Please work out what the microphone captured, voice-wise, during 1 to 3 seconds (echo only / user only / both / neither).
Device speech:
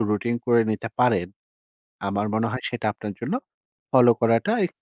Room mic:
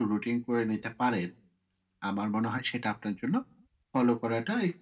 echo only